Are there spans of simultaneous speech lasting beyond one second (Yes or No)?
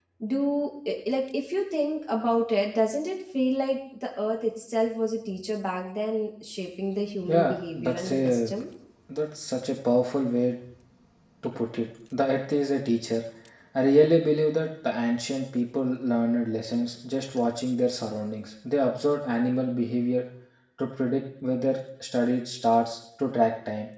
Yes